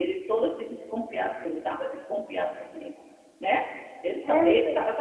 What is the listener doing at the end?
listening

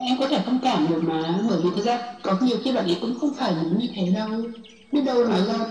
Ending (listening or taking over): listening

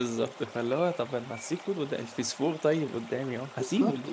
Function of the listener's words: taking over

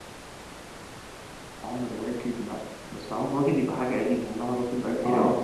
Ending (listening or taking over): taking over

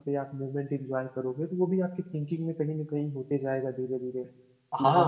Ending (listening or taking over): taking over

